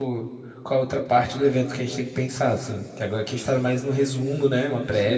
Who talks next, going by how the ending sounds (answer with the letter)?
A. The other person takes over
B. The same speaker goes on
A